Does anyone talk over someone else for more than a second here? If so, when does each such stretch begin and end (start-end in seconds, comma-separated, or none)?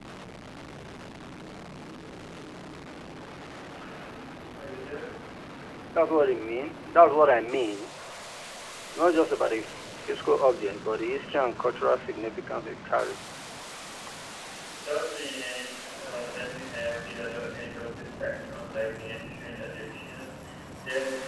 none